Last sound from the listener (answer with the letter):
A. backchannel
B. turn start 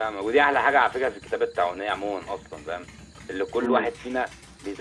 A